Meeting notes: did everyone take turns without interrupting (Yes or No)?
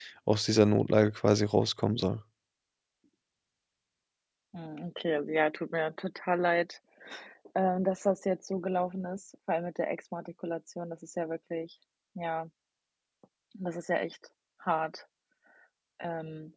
Yes